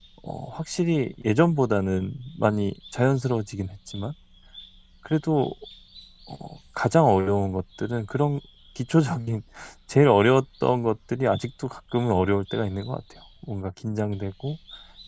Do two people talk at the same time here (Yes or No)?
No